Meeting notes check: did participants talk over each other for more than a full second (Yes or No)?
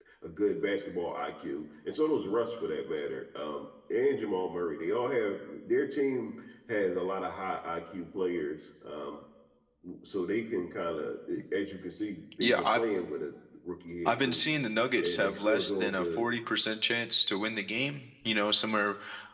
Yes